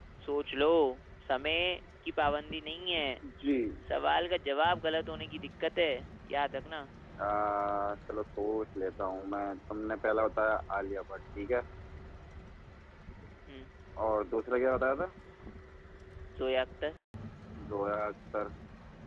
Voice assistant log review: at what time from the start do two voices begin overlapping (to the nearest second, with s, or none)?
none